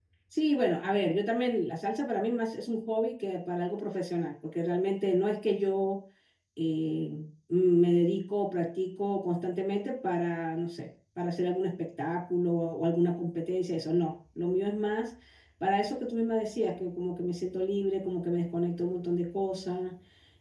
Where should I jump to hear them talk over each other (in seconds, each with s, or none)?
none